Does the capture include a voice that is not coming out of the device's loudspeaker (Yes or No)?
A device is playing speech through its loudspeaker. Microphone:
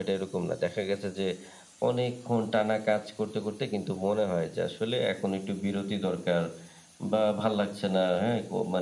No